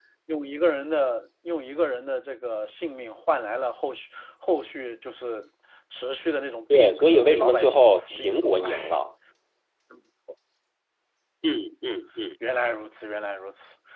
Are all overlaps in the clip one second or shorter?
No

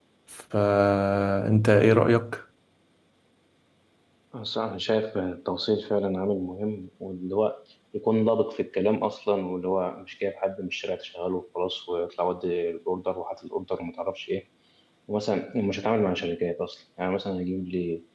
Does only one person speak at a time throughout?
Yes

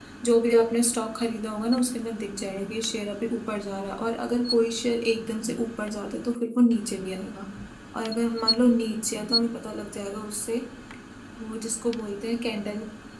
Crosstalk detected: No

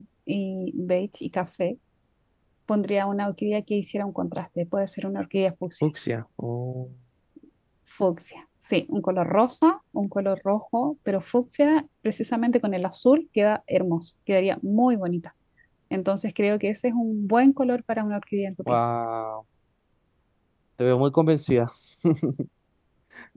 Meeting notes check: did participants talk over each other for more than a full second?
No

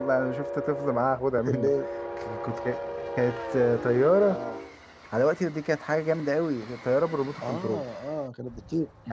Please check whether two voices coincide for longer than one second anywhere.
No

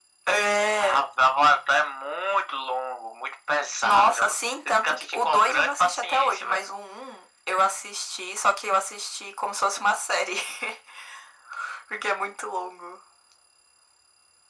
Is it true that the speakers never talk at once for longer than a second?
No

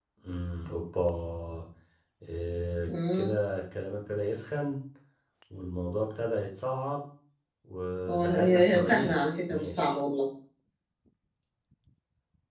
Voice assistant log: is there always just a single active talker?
No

